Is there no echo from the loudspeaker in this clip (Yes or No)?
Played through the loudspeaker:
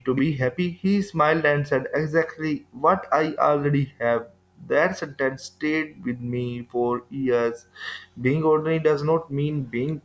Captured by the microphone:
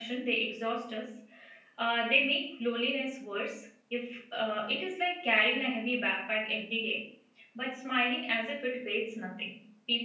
Yes